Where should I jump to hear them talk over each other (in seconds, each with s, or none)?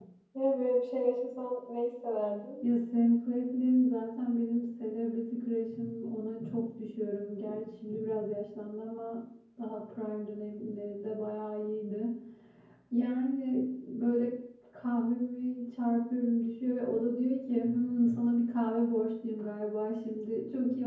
none